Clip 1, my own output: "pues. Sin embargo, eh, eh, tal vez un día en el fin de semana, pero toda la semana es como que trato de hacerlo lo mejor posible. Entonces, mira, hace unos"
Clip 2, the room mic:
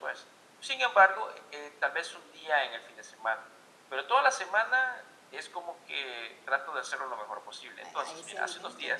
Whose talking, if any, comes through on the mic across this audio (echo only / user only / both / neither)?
both